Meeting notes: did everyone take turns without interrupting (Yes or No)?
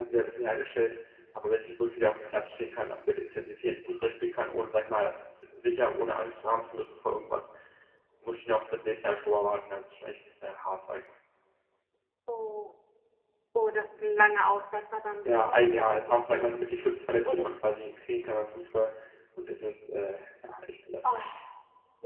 No